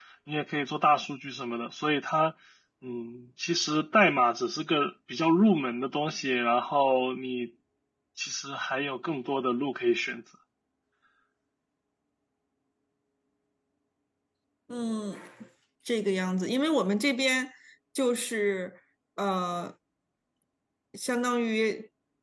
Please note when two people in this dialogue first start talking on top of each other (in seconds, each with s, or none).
none